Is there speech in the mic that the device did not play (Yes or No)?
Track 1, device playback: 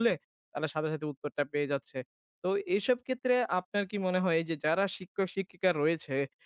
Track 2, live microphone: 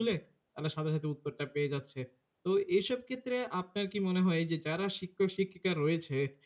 No